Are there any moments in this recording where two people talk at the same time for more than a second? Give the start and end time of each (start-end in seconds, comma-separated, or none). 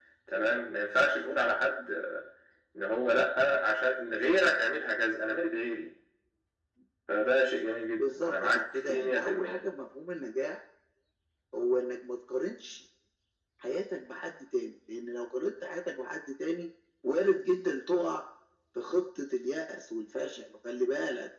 8.0-9.6